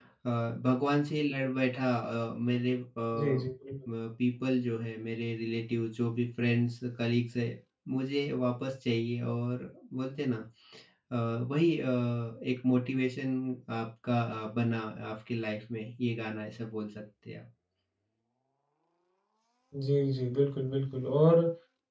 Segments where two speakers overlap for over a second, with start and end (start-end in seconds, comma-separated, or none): none